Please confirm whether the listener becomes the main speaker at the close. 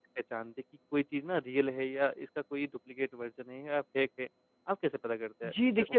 Yes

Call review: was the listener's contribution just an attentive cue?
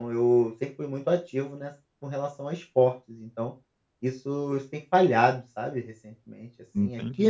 Yes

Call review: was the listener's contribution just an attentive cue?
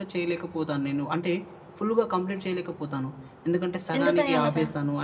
Yes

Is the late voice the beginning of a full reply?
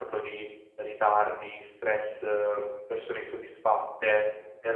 No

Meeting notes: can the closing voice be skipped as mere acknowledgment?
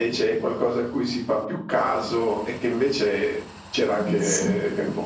Yes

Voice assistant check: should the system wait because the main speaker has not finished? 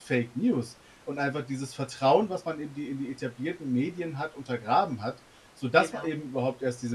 Yes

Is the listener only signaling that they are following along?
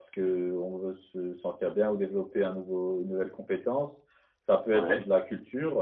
Yes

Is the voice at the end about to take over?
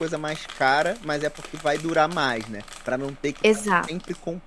No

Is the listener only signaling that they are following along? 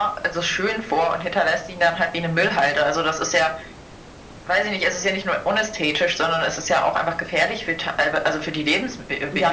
No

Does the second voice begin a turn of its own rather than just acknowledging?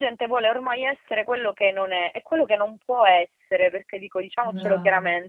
No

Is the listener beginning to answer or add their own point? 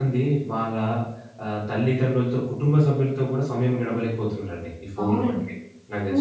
Yes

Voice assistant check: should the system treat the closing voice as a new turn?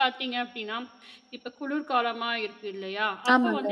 No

